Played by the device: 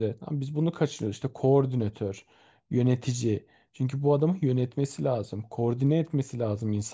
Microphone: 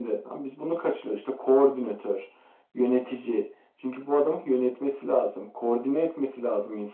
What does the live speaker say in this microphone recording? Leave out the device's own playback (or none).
none